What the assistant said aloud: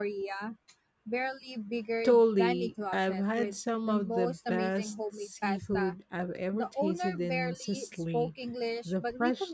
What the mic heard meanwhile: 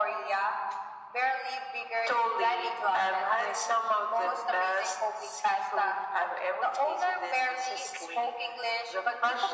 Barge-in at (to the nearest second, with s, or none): none